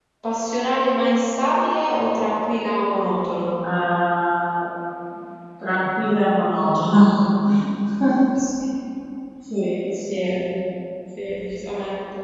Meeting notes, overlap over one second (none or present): none